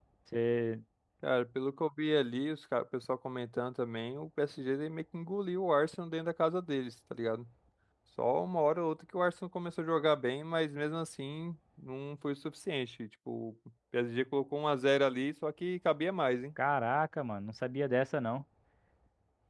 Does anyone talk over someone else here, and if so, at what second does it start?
none

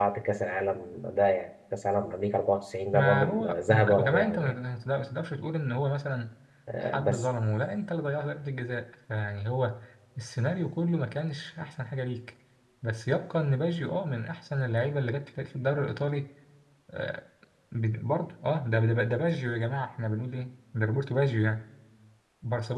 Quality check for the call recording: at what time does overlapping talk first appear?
3 s

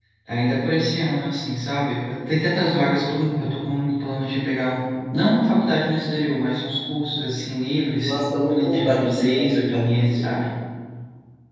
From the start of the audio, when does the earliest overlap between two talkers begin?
8 s

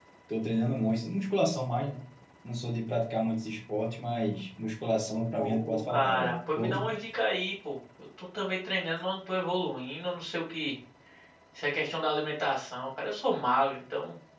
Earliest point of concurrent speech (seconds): 5 s

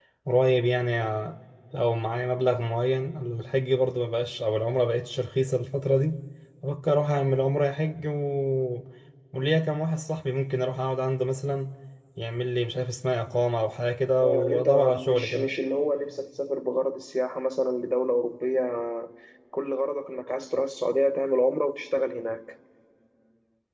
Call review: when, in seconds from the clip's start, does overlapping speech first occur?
14 s

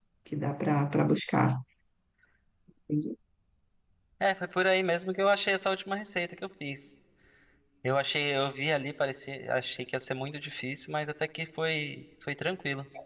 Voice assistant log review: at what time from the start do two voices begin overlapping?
none

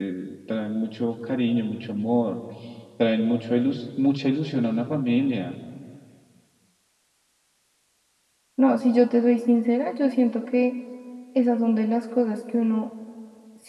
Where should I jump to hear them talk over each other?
none

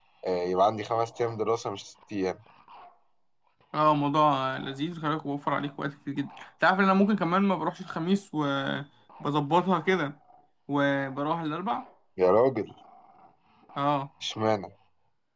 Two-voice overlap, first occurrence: none

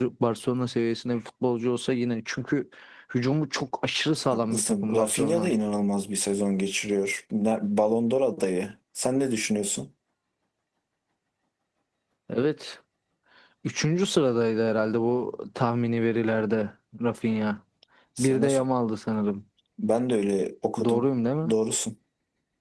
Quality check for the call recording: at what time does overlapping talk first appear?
4 s

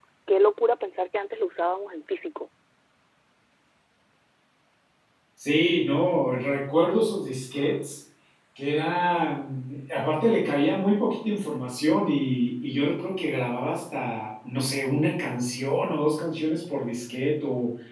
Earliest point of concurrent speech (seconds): none

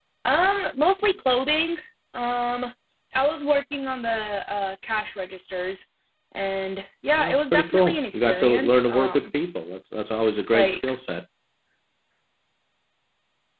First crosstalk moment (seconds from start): 7 s

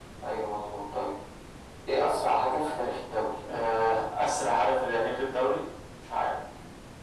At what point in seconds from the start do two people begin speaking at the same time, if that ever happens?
none

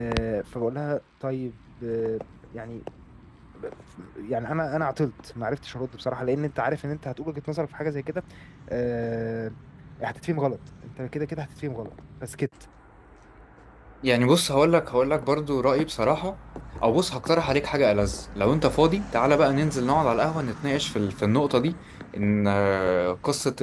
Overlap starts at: none

